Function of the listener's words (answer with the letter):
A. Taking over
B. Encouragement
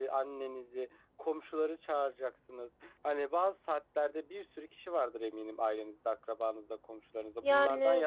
B